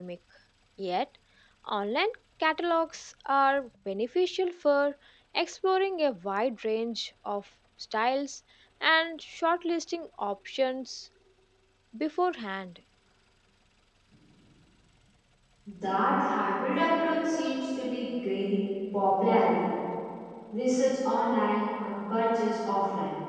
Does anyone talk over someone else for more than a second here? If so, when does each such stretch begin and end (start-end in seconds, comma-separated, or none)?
none